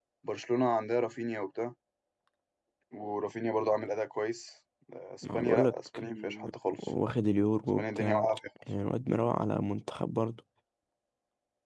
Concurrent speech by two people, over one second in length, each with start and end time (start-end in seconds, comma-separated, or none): 5.2-6.4